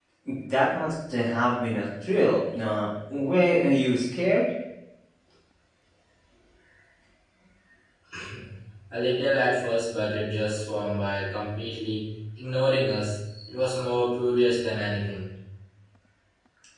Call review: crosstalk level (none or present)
none